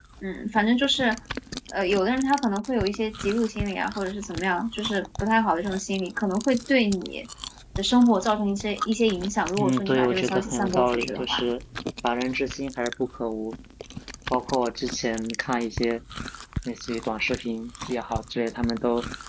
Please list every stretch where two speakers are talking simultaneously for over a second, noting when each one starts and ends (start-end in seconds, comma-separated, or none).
9.6-11.4